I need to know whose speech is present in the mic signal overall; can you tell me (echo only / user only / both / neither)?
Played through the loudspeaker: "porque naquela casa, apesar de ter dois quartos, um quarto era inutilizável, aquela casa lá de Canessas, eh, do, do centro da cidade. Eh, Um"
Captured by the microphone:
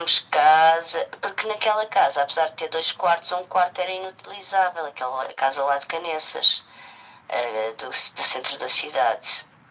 echo only